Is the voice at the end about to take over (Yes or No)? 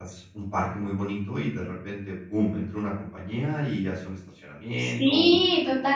Yes